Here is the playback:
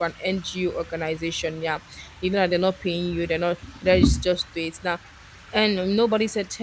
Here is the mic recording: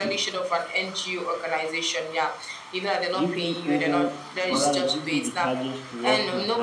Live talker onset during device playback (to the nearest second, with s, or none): 3 s